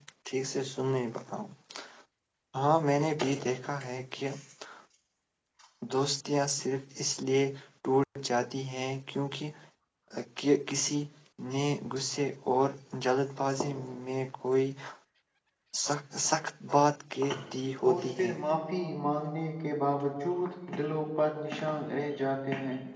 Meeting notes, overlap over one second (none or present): none